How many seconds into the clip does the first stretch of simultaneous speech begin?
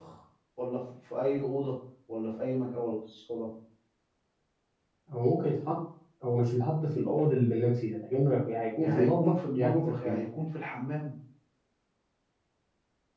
8.8 s

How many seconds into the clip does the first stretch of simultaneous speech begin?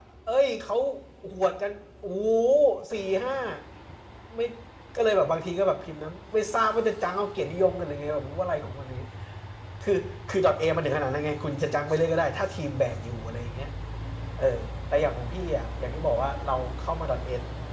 none

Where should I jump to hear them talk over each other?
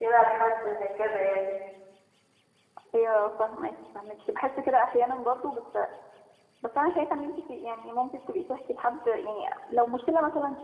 none

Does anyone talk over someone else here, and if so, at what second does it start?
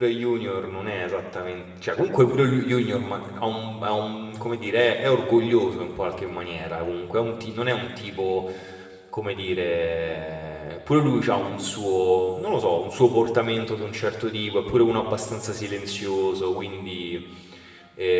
none

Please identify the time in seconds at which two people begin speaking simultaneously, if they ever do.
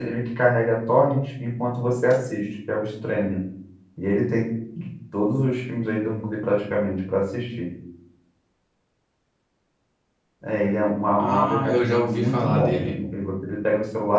11.2 s

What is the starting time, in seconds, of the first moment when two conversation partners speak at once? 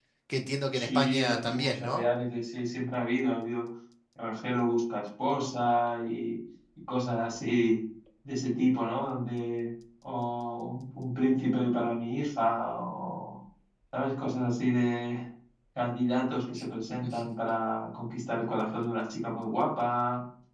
0.7 s

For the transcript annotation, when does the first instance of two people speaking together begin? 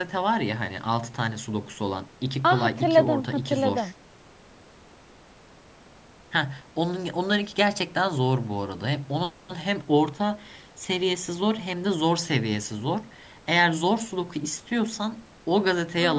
2.4 s

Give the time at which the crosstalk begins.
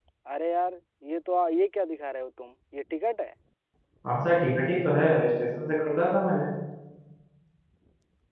none

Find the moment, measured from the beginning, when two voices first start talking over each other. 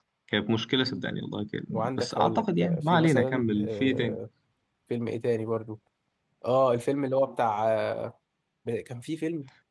1.7 s

